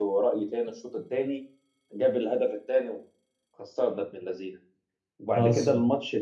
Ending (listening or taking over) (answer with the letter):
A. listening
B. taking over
A